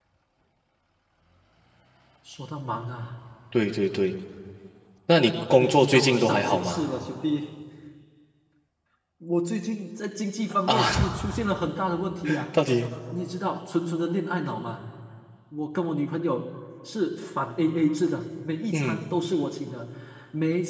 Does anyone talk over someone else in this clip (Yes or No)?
Yes